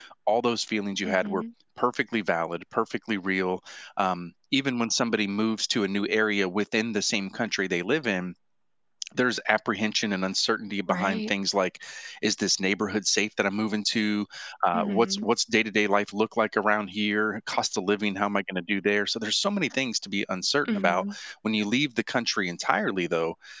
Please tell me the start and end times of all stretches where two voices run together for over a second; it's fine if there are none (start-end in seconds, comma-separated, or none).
none